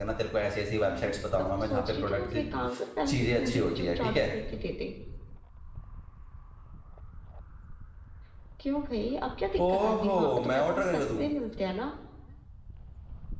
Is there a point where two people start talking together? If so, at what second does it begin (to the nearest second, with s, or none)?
1 s